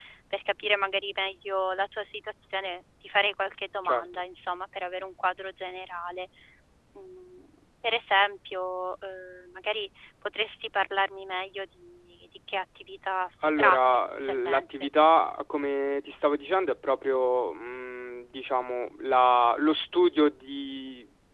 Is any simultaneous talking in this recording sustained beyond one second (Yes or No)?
Yes